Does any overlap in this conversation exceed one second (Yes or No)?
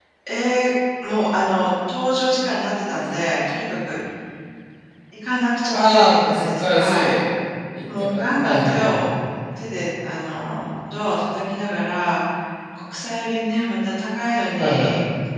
Yes